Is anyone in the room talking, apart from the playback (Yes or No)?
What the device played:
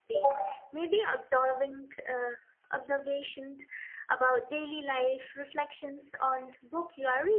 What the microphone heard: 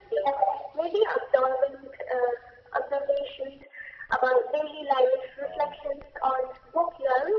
Yes